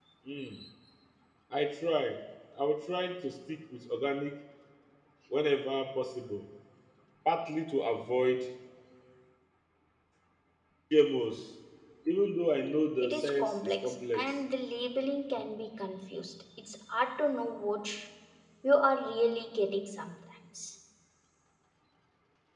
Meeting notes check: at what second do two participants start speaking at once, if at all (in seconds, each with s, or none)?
13.0 s